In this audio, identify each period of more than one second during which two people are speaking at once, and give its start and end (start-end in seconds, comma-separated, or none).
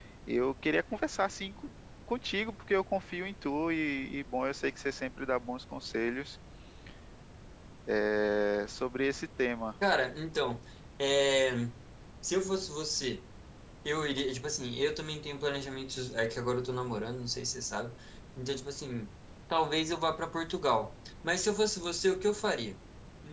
none